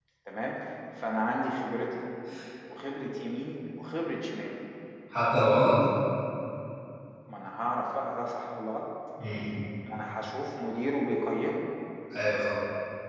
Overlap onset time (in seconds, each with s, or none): none